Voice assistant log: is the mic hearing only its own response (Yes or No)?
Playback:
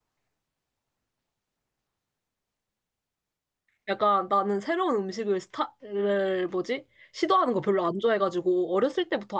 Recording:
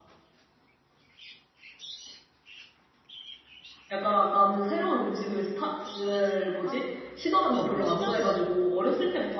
No